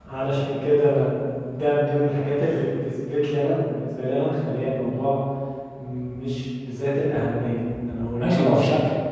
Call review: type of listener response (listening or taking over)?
taking over